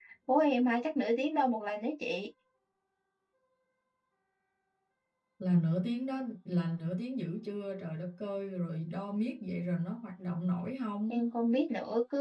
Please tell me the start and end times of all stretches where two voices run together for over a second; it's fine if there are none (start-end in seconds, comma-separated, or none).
none